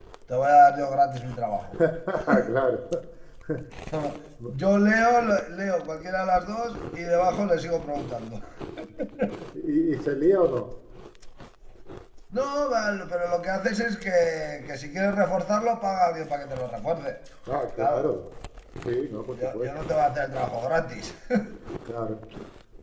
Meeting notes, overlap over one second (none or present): none